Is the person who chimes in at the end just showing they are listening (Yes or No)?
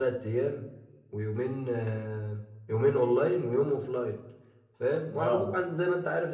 Yes